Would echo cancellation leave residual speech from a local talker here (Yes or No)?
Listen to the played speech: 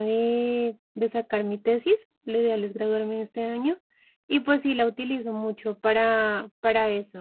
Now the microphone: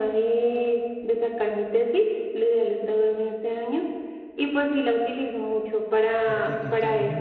Yes